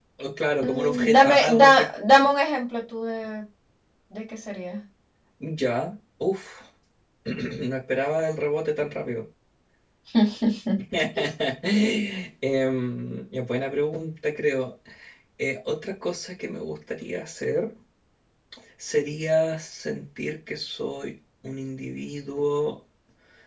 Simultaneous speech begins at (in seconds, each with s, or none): 0.6 s